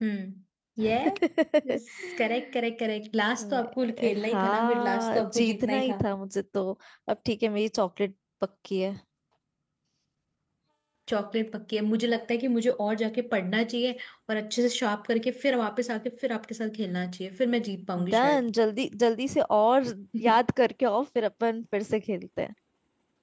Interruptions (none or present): present